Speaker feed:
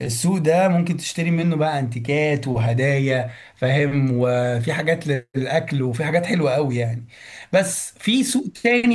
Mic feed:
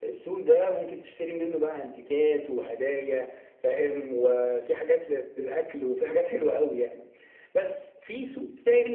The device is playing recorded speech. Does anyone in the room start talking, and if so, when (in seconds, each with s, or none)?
none